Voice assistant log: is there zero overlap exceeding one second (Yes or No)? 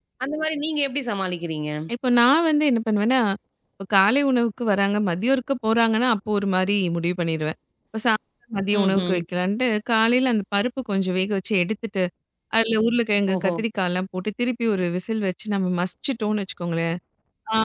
Yes